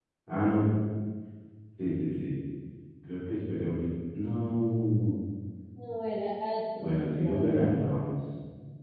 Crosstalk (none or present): present